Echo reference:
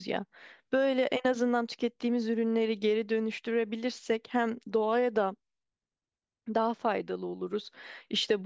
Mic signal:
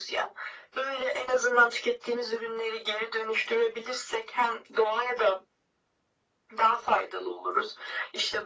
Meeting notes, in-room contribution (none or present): none